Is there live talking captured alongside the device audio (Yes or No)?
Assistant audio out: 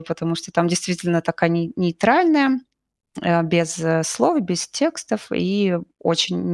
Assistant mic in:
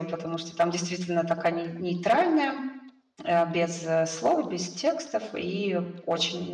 No